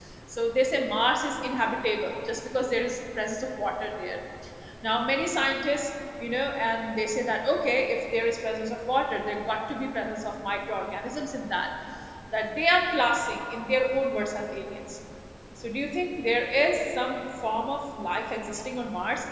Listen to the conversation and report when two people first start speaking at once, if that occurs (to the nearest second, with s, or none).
none